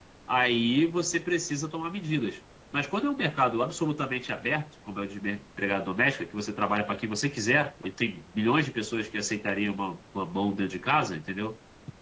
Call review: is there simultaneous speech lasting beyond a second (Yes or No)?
No